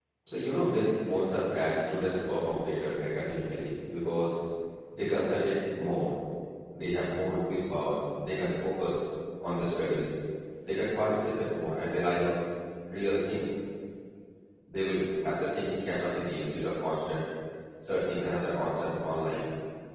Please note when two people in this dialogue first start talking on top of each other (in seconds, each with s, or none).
none